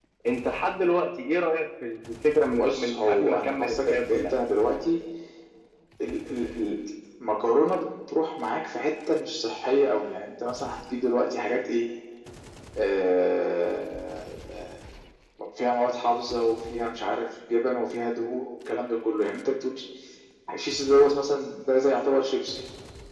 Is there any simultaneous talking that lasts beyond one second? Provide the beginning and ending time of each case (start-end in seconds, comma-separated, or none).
2.5-4.4